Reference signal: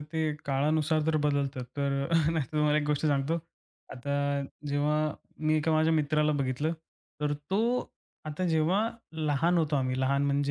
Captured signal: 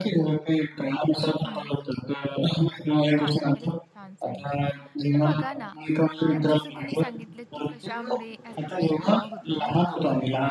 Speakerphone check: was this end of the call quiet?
No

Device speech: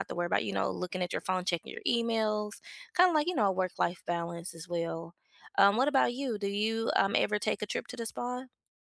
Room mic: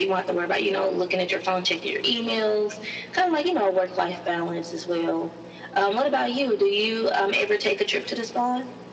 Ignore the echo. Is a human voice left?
No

